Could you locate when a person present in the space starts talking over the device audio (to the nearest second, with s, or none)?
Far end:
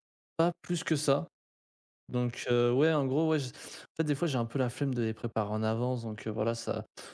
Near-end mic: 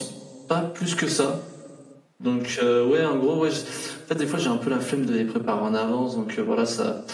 none